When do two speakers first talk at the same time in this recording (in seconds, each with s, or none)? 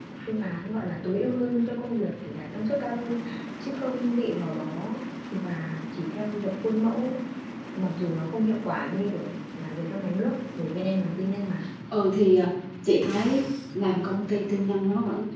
none